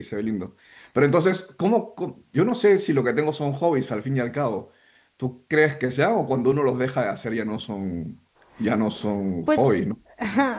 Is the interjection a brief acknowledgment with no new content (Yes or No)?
No